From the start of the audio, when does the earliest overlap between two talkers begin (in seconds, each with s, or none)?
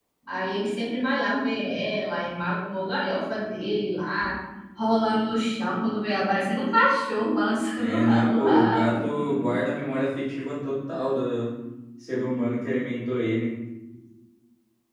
7.8 s